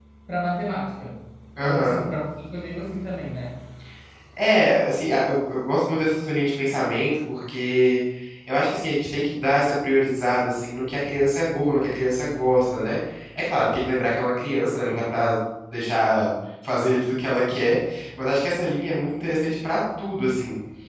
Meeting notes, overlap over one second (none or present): none